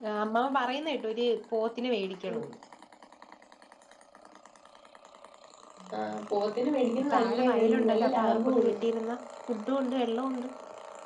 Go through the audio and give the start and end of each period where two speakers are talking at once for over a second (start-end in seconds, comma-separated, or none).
7.1-8.7